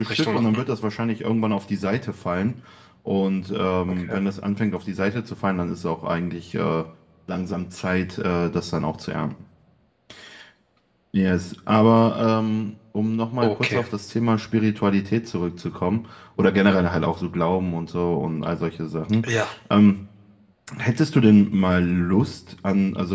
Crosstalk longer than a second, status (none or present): none